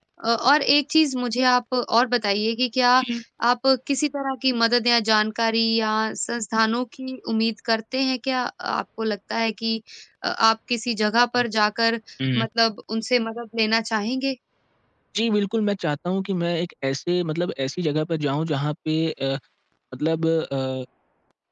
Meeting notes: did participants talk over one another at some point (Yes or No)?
No